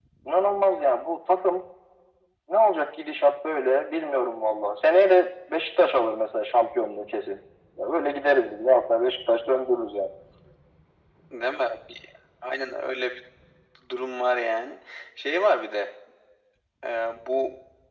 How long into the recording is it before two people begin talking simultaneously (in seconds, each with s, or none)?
none